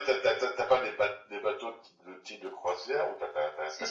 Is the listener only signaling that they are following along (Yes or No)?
Yes